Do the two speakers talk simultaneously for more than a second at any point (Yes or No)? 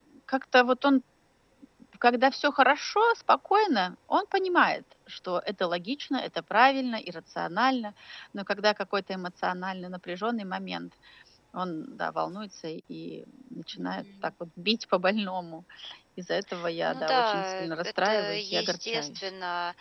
Yes